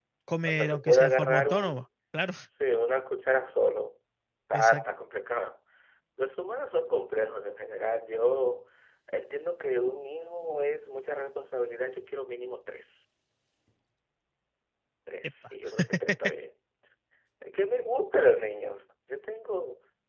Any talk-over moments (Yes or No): Yes